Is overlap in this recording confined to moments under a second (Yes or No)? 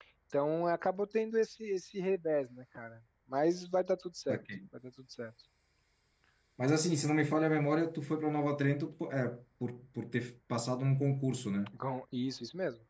Yes